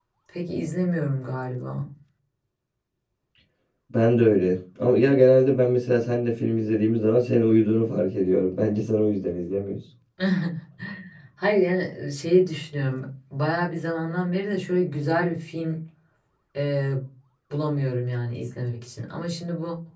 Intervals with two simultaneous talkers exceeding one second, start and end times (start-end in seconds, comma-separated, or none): none